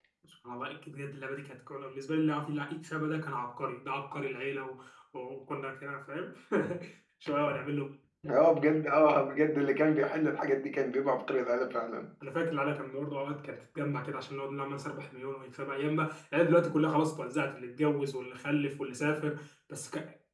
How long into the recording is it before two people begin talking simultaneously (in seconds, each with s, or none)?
none